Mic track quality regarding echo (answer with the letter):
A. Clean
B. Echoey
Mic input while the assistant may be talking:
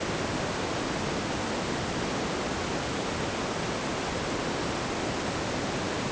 A